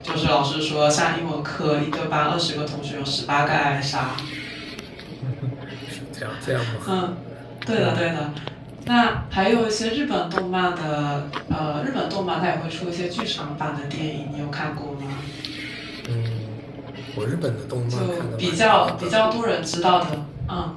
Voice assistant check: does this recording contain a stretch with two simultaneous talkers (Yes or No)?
Yes